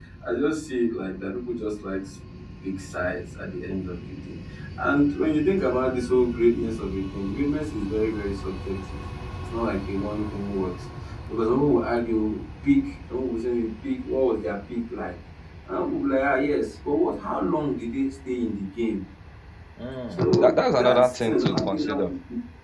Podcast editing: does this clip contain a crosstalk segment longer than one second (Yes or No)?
Yes